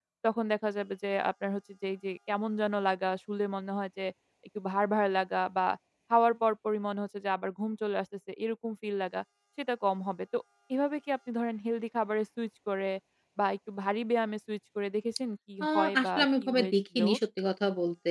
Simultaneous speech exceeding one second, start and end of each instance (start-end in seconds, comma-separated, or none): 15.6-17.0